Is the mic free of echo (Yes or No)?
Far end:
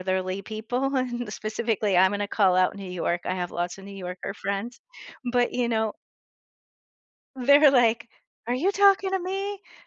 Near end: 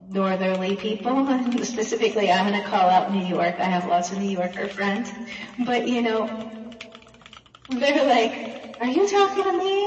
No